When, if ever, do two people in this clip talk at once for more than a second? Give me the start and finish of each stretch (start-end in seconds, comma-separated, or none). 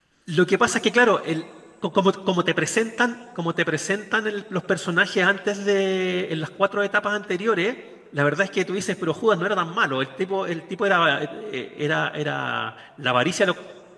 none